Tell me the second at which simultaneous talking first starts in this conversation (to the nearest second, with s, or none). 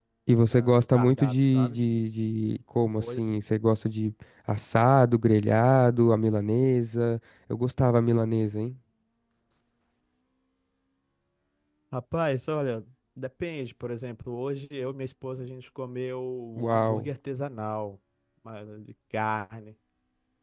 1 s